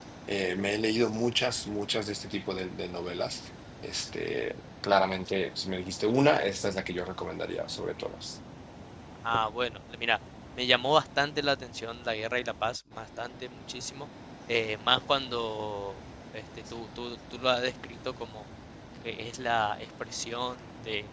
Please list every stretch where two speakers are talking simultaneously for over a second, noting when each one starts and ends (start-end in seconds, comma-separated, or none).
none